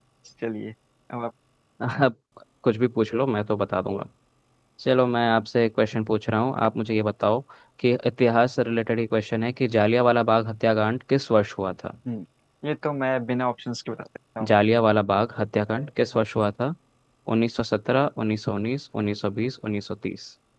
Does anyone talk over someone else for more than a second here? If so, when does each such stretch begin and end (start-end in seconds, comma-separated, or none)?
none